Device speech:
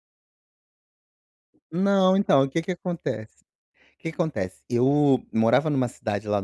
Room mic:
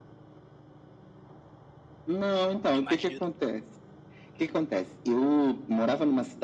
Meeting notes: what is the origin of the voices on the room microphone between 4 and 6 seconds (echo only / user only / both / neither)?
echo only